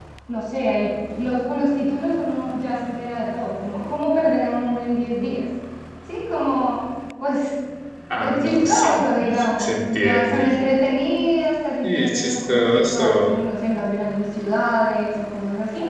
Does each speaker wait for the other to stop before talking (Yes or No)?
No